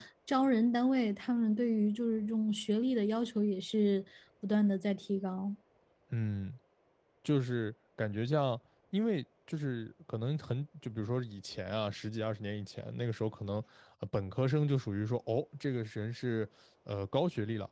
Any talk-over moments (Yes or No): No